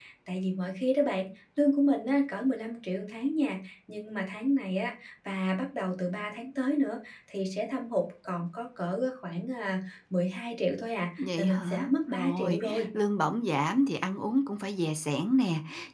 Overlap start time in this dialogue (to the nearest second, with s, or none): 11 s